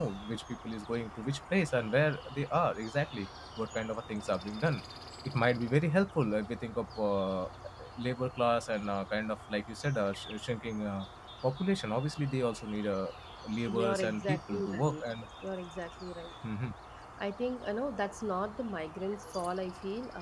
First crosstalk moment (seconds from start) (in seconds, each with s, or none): 13.7 s